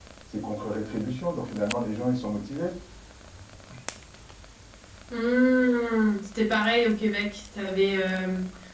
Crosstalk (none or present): none